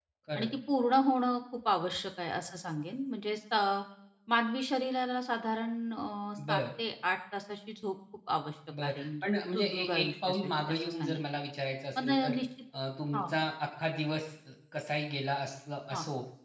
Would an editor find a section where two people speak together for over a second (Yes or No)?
Yes